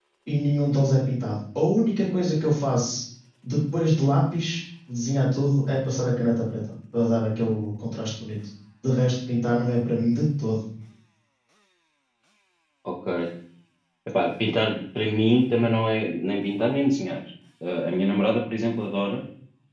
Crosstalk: none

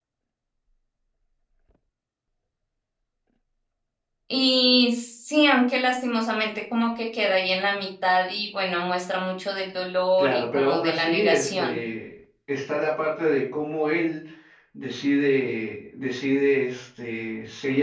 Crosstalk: present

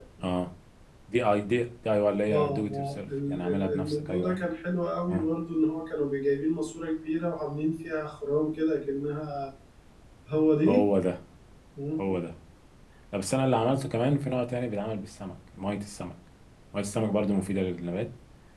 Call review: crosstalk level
present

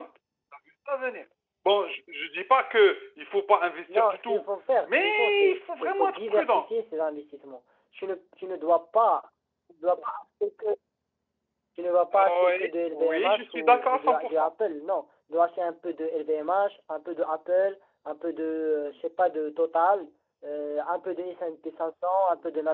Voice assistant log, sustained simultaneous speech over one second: present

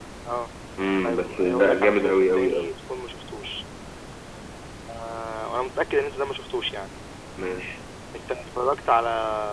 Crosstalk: present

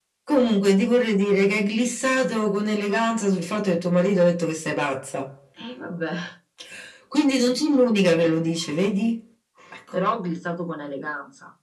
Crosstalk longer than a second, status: none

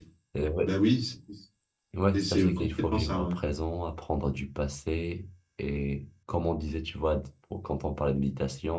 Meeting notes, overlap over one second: present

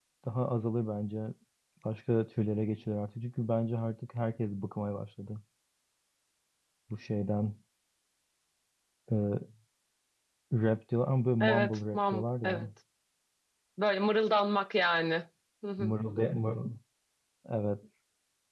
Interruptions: present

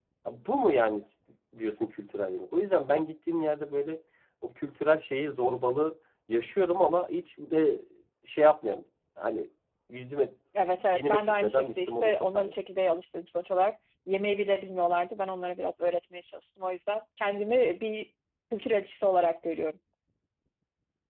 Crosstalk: present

